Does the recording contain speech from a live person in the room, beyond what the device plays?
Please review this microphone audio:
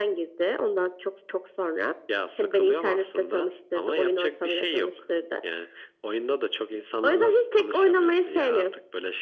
No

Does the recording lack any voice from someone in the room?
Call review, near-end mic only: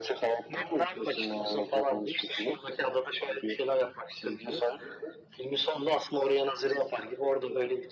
Yes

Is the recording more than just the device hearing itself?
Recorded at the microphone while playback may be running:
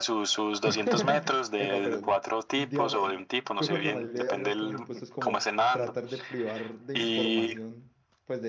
Yes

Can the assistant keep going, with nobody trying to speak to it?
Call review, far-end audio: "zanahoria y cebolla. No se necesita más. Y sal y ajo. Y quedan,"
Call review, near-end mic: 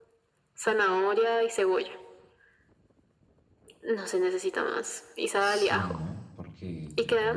No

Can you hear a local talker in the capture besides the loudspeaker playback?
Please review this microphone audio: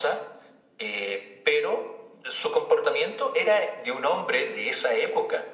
No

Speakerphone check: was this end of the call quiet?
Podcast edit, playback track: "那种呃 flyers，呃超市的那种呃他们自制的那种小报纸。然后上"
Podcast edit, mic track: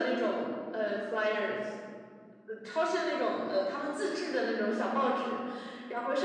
Yes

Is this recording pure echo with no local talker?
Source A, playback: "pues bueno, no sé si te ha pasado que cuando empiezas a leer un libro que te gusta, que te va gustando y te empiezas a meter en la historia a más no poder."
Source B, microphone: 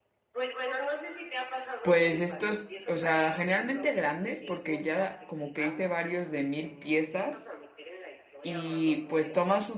No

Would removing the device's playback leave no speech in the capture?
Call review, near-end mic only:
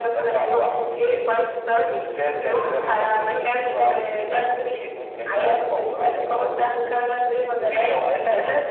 Yes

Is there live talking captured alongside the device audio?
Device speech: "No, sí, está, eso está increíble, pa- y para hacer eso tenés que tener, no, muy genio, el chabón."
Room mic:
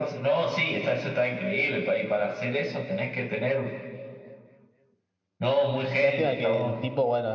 Yes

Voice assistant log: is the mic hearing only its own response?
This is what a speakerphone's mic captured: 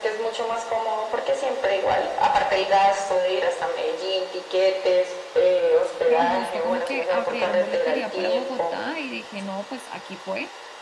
No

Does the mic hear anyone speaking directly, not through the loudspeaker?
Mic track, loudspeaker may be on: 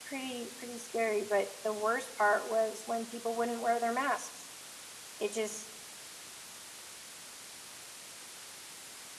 Yes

